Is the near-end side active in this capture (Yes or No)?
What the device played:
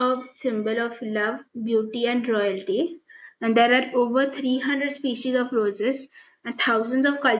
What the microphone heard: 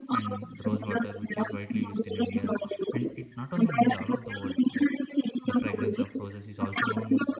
Yes